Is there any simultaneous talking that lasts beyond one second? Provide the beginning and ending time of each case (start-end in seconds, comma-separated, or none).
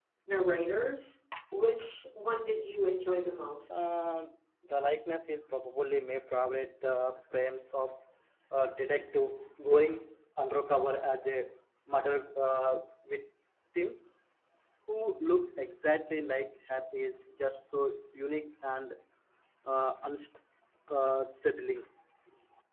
none